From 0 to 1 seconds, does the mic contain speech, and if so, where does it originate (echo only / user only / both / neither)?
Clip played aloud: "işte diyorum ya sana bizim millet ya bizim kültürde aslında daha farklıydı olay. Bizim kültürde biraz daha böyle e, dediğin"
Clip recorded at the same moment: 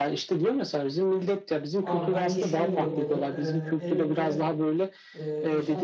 echo only